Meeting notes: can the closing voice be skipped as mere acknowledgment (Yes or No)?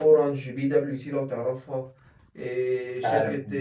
Yes